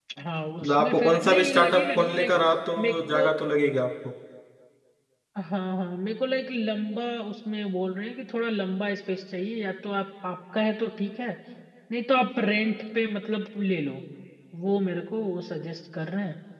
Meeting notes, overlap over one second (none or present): present